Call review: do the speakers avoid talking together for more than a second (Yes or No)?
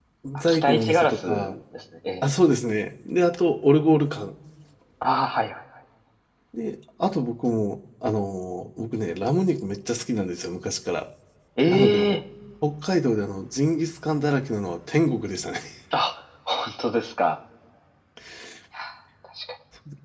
No